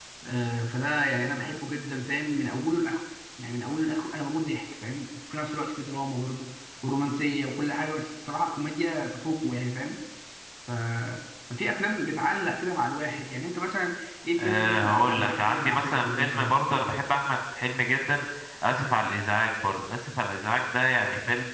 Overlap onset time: 14.4 s

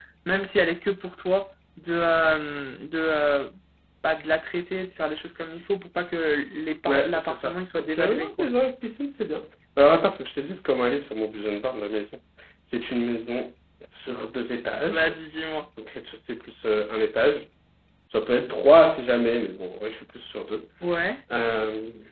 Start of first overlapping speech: 6.9 s

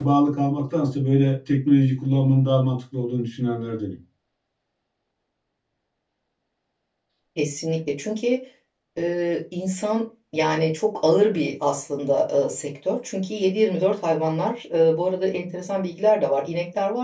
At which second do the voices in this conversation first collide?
none

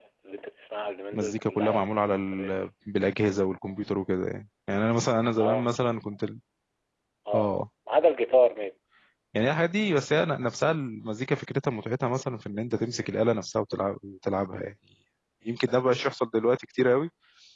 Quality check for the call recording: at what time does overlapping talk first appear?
1.1 s

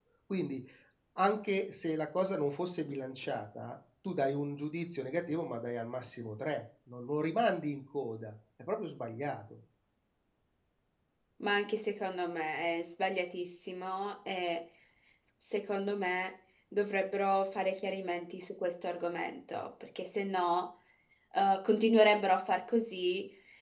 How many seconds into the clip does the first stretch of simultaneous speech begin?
none

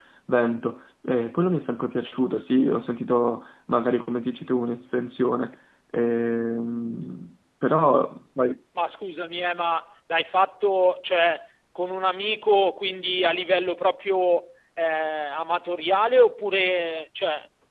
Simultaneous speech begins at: none

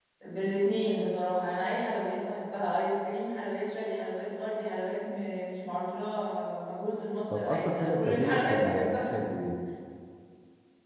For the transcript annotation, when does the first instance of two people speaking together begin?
7.3 s

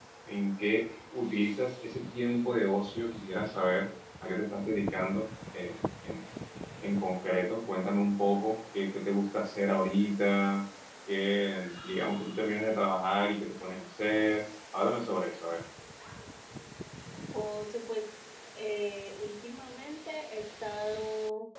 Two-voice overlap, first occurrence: none

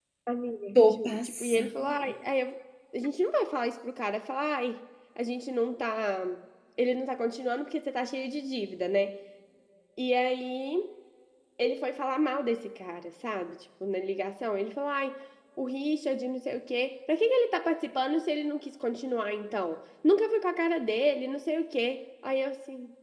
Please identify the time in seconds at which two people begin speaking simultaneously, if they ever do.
0.8 s

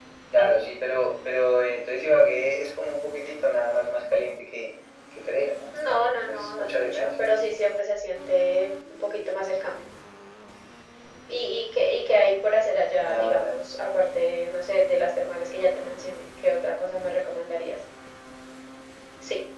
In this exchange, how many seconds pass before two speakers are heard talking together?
5.8 s

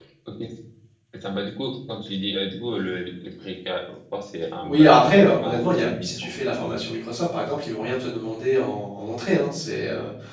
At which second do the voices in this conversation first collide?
4.6 s

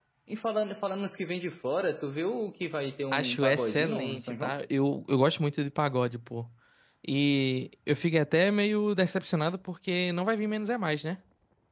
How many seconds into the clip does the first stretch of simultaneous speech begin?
3.1 s

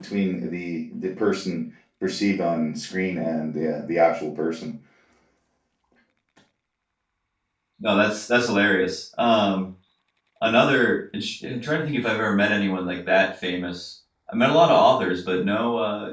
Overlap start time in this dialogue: none

